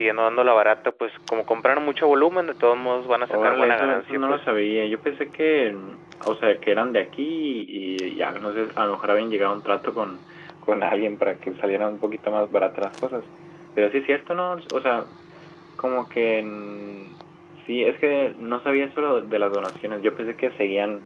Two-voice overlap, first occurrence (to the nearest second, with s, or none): 3 s